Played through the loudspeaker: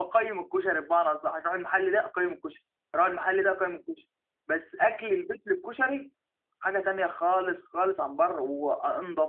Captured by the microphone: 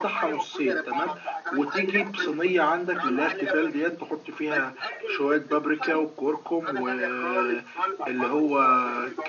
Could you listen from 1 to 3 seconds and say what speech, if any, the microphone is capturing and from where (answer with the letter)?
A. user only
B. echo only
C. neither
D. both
D